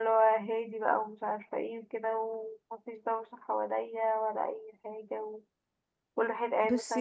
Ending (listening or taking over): listening